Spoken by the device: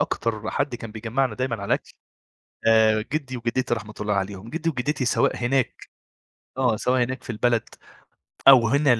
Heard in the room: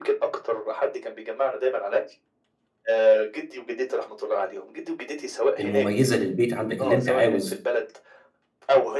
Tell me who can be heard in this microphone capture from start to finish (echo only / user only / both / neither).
both